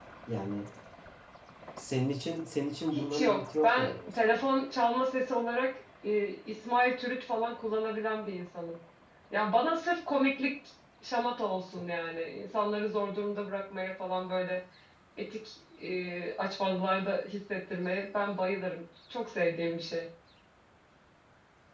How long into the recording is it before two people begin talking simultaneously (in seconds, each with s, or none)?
2.9 s